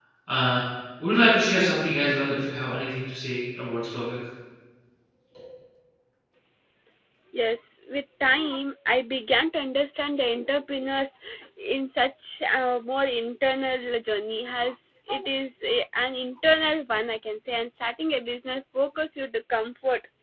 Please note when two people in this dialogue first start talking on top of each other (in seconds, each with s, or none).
none